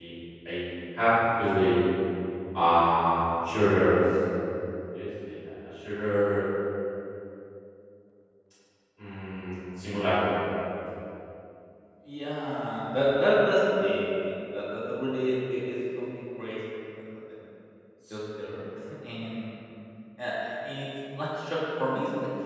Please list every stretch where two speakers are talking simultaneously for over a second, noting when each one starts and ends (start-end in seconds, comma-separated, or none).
none